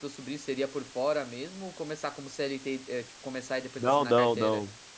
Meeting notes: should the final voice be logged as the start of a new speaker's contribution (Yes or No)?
Yes